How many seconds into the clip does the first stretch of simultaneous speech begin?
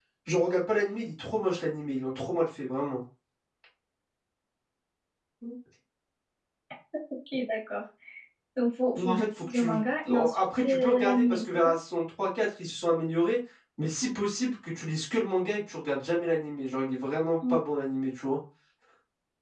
8.9 s

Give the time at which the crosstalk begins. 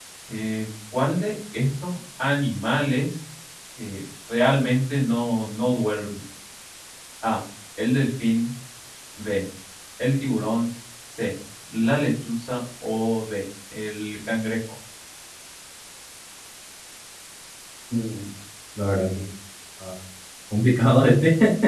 none

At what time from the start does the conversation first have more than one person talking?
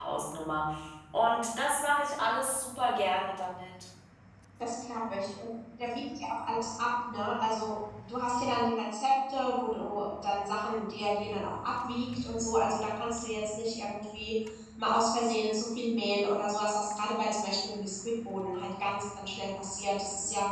none

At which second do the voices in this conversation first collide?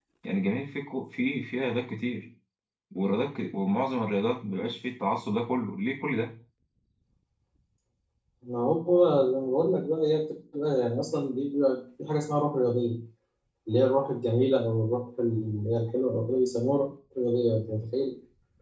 none

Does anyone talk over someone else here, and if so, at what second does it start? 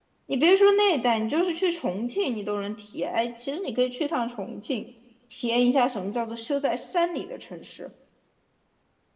none

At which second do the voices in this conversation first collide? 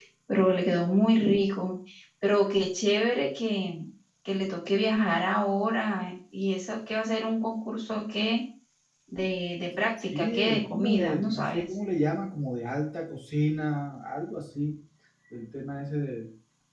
10.1 s

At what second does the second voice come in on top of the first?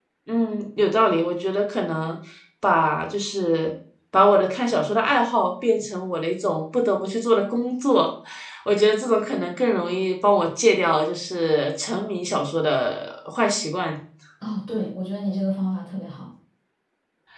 none

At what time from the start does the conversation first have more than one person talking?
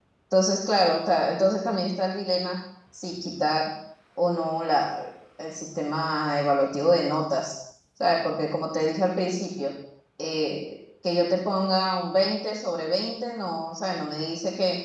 none

